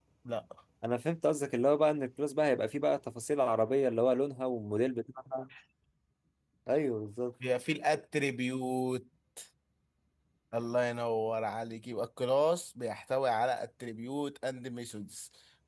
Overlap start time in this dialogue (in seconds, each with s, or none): none